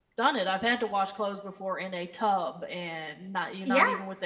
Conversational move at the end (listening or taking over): listening